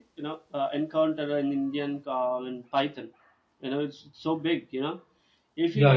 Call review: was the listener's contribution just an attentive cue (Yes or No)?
No